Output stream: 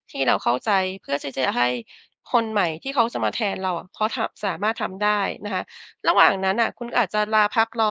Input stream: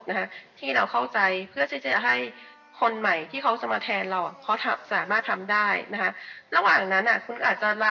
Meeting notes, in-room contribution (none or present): none